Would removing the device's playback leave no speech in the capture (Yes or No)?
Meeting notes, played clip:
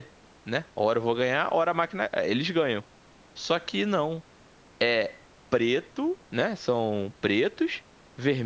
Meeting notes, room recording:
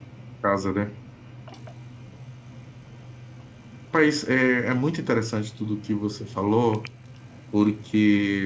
No